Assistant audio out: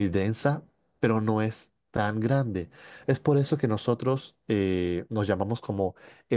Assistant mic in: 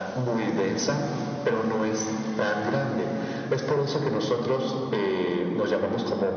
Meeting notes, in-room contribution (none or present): none